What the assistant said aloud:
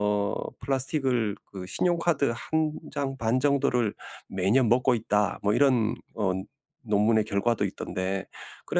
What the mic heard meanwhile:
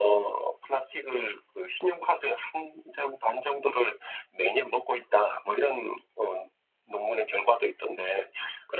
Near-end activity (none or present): none